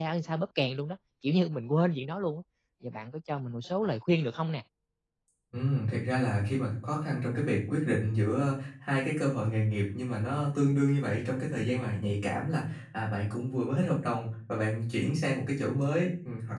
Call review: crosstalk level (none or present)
none